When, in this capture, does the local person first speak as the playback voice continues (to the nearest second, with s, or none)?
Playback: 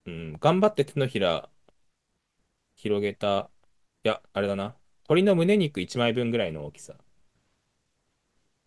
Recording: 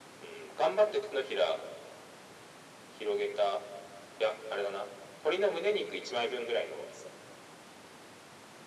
none